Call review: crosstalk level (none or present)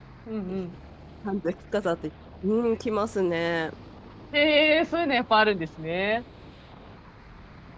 none